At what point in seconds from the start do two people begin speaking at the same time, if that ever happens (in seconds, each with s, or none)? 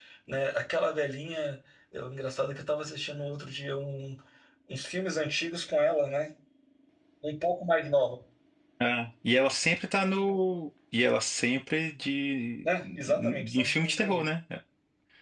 12.7 s